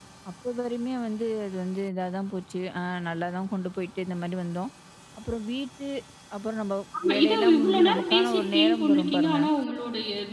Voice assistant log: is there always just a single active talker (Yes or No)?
No